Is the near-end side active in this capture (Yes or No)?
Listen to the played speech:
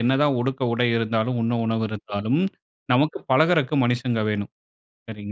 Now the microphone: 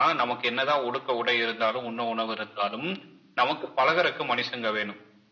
No